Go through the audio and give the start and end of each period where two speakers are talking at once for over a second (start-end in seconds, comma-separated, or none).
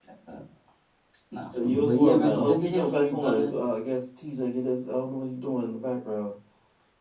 1.6-3.5